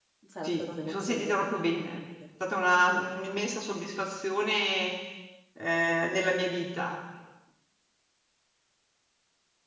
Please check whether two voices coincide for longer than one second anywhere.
Yes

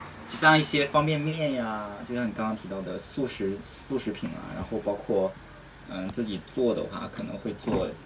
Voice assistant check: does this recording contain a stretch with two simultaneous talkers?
No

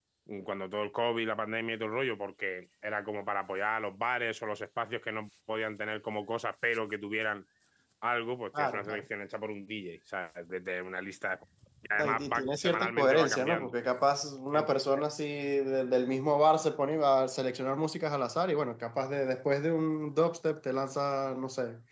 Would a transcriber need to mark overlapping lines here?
Yes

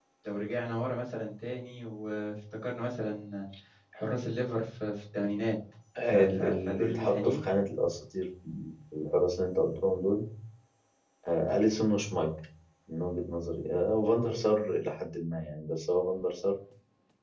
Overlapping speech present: Yes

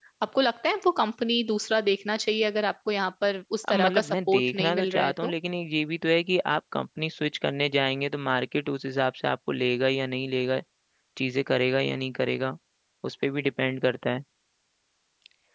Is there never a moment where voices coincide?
No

